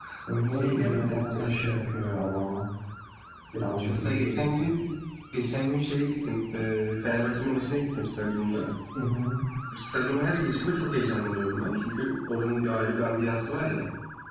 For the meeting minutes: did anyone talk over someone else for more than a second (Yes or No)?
Yes